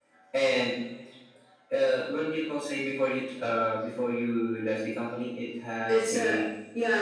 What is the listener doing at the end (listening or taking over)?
taking over